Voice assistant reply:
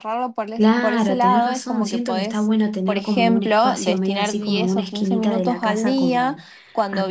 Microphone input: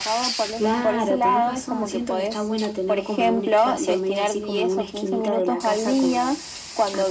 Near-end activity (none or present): none